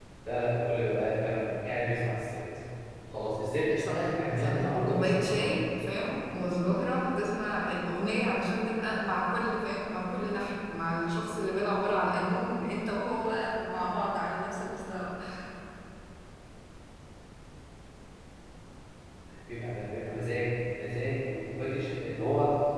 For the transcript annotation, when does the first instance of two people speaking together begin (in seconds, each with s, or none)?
3.8 s